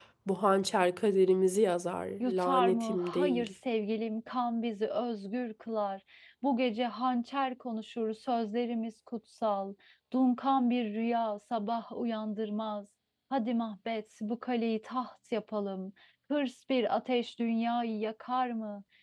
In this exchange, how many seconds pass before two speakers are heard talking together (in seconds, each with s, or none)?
2.2 s